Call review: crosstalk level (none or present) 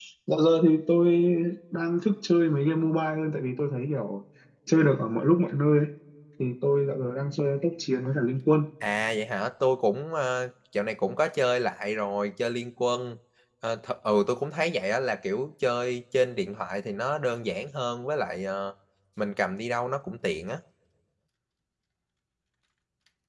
none